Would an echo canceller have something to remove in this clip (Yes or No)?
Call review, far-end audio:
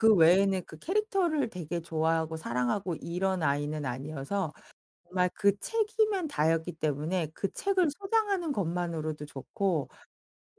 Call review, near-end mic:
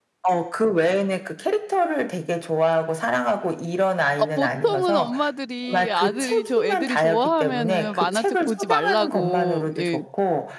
Yes